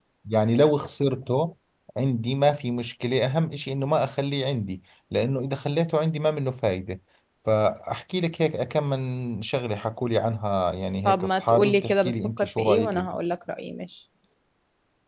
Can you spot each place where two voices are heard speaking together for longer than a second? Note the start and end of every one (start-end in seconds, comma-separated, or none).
11.0-13.1